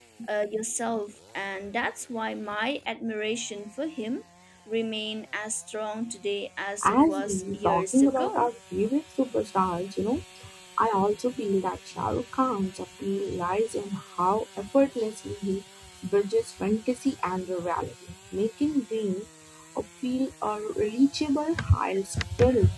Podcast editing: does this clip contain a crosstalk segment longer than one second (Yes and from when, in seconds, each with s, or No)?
Yes, from 6.8 s